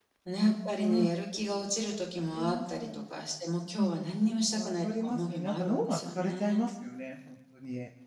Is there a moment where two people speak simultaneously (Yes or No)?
Yes